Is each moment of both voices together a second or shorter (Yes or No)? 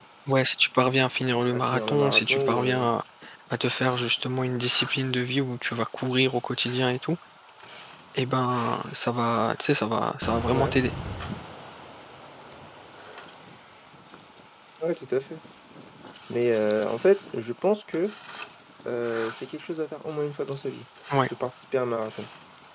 No